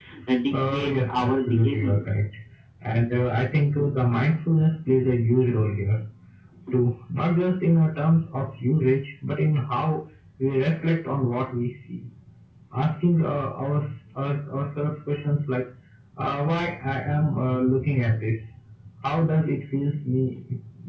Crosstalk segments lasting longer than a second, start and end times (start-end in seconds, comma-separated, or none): 0.5-2.0